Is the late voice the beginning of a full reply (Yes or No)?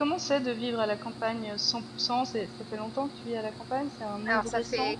Yes